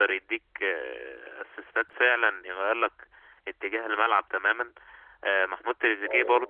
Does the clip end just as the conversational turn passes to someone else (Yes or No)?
No